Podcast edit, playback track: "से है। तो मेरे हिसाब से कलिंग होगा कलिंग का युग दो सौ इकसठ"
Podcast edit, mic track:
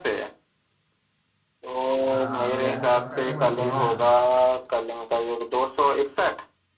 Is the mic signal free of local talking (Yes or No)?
No